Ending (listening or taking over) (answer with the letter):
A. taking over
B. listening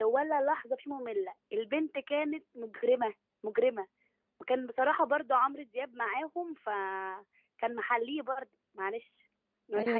A